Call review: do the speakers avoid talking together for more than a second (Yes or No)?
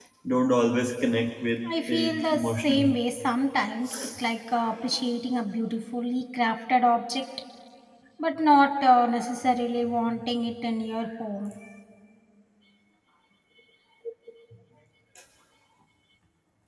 No